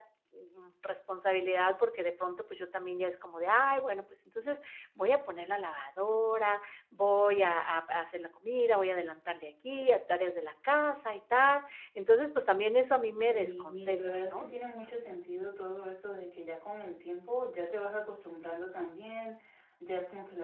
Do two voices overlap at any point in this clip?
Yes, from 13.1 s

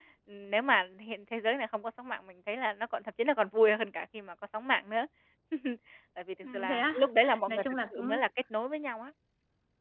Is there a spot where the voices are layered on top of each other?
Yes, from 6.4 s

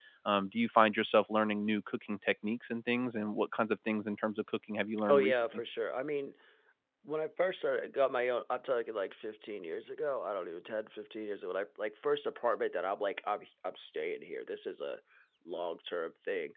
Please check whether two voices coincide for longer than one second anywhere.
No

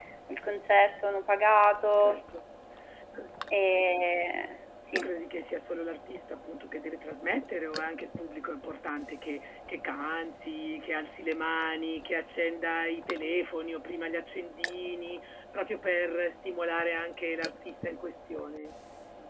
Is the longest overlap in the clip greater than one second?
No

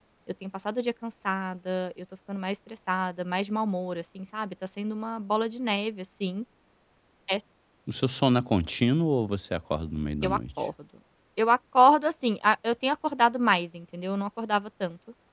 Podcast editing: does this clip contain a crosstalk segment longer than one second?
No

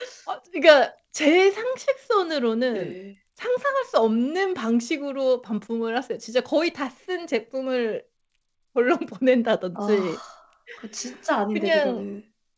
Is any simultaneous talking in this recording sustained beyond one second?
No

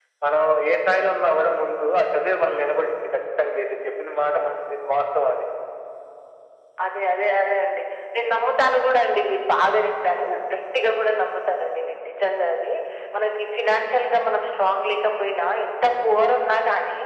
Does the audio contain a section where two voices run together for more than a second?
No

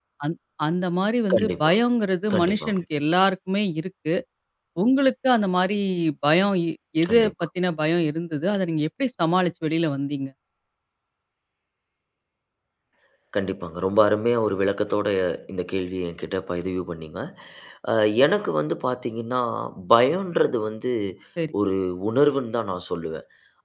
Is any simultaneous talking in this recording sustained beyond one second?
No

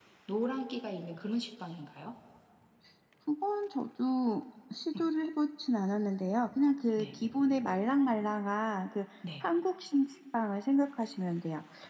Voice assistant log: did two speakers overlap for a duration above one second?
No

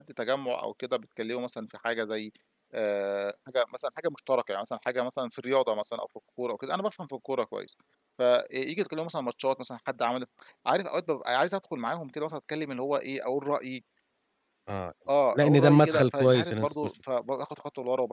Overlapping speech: Yes, from 15.3 s

